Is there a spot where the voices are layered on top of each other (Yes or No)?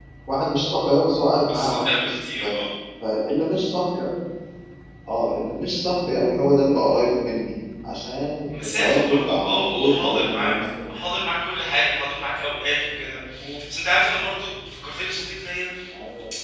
Yes